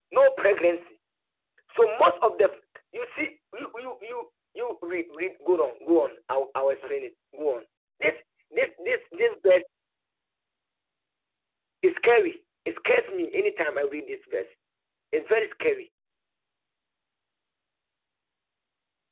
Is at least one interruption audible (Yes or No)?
No